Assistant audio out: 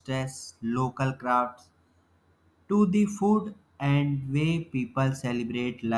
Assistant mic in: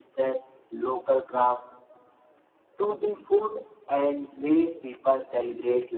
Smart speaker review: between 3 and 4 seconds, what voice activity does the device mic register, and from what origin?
echo only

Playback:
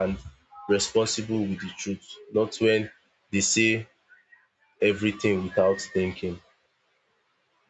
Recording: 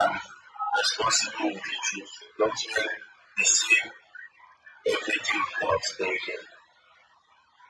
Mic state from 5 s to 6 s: echo only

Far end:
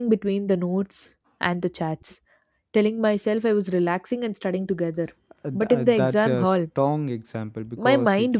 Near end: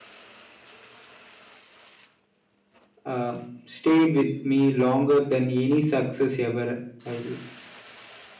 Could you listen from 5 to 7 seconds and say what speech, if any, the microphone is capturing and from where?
user only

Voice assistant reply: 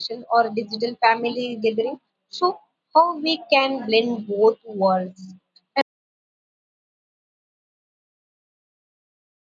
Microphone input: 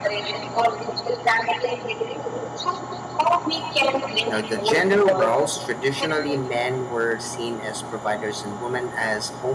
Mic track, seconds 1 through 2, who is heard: echo only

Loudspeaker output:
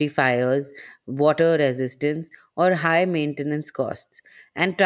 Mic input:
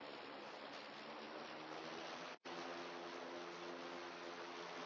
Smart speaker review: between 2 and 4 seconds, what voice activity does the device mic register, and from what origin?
neither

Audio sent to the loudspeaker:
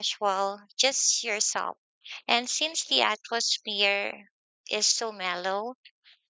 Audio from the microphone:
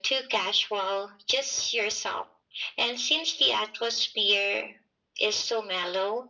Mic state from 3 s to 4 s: echo only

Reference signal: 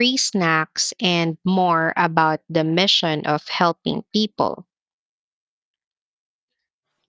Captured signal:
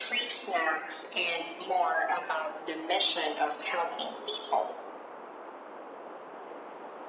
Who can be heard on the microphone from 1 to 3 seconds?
echo only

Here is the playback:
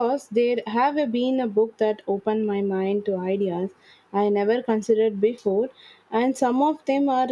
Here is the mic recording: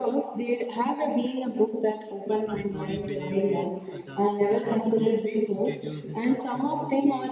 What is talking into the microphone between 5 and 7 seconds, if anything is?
both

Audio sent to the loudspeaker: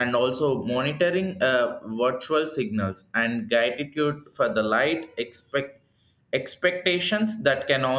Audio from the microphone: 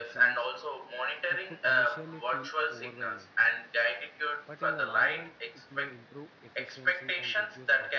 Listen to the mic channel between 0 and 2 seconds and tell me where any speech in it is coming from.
both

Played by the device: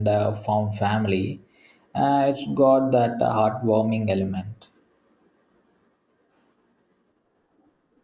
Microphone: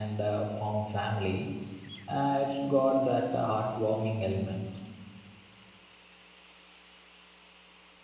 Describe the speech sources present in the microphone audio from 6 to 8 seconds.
neither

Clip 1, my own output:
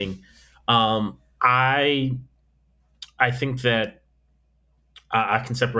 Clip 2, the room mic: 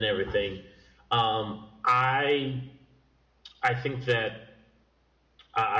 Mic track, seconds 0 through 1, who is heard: echo only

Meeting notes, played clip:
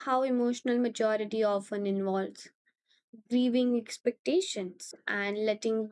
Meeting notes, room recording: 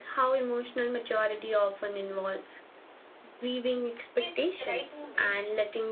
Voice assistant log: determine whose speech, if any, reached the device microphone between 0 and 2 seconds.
echo only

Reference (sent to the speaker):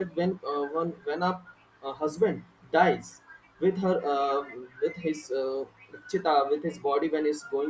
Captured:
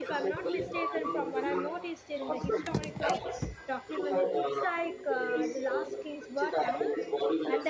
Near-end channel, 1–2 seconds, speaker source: both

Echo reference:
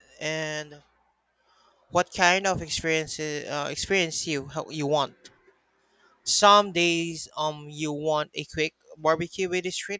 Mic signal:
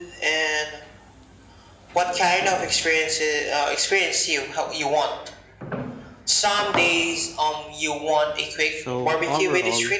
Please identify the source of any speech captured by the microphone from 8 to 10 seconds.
both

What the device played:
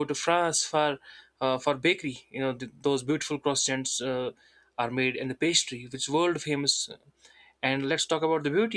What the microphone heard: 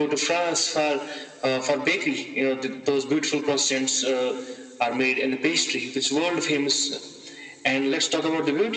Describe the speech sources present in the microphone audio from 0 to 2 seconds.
echo only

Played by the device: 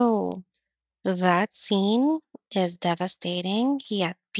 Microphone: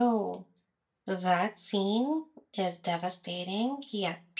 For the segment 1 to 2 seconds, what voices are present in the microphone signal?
echo only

